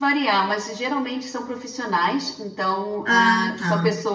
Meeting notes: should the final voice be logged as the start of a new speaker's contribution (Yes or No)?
No